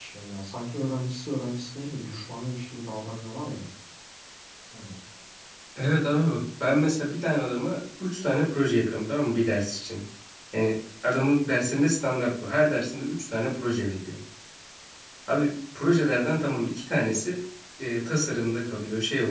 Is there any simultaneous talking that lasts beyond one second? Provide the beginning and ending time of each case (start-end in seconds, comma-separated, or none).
none